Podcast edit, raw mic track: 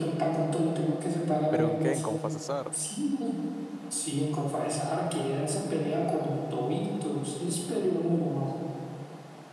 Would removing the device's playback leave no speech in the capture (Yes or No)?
No